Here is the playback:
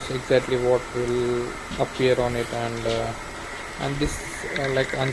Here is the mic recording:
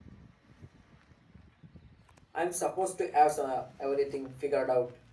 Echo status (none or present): none